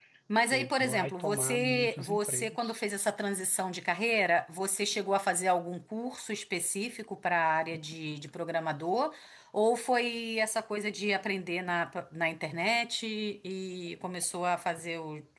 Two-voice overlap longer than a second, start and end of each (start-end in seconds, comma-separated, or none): 0.5-2.8